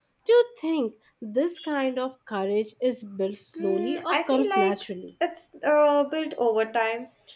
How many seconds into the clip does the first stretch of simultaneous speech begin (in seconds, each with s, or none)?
3.6 s